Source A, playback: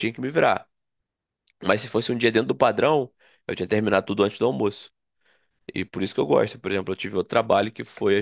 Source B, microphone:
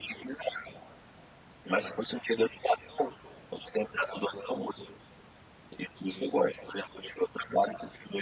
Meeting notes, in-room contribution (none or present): none